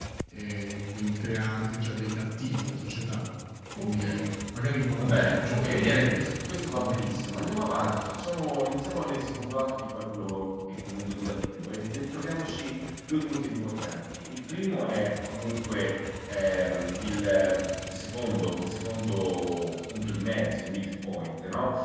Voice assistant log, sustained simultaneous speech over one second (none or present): present